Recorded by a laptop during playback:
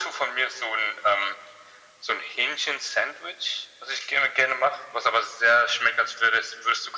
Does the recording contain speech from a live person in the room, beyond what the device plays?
No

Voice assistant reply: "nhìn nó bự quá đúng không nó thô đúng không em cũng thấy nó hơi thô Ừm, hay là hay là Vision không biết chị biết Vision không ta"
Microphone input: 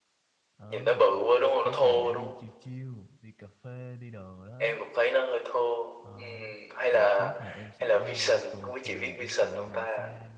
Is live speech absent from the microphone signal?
No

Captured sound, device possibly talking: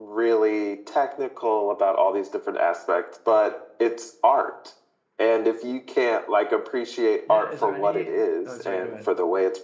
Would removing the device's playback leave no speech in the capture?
No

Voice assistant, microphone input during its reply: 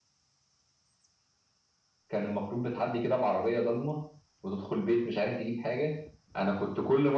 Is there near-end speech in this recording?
Yes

